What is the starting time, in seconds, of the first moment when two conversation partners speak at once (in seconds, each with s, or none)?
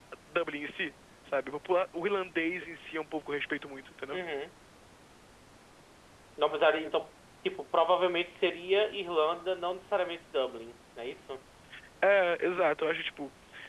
none